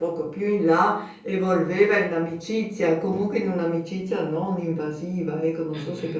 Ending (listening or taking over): taking over